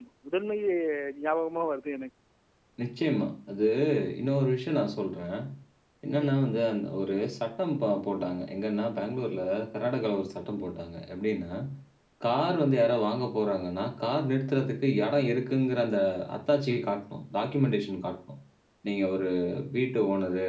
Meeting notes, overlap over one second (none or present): none